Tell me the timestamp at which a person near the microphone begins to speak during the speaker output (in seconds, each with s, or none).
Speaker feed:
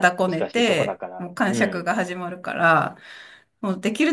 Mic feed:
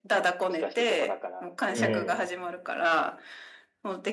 1.8 s